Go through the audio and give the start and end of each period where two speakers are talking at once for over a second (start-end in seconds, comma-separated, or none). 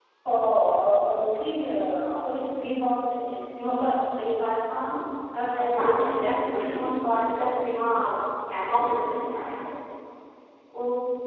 5.6-6.9